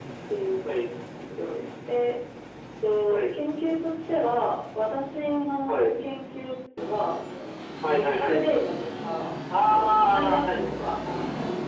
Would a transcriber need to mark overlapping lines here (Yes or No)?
Yes